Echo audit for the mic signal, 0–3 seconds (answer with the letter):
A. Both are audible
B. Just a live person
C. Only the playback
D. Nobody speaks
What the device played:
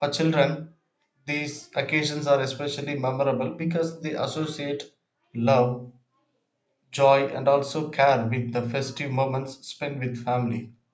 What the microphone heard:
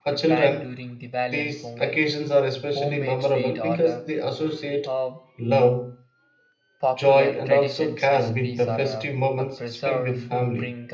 A